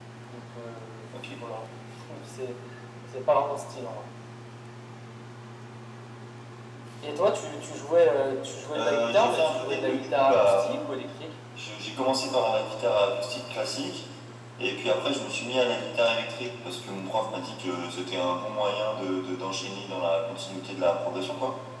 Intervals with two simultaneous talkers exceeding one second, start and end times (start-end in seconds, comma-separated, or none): 8.7-10.7